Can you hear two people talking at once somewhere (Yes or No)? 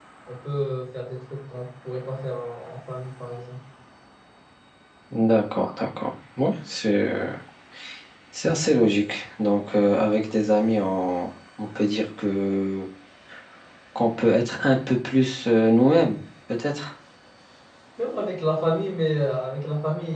No